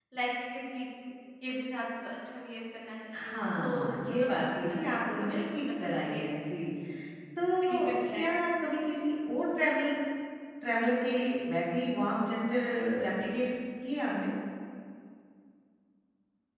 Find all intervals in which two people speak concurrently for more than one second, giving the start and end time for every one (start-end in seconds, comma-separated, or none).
3.1-6.2